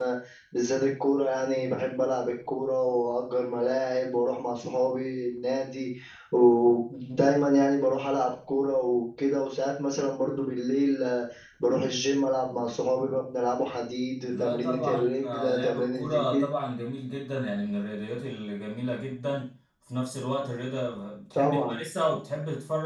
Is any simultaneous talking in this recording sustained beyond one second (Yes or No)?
Yes